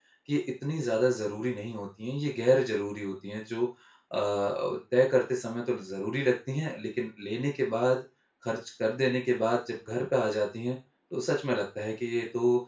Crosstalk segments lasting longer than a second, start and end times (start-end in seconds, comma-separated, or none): none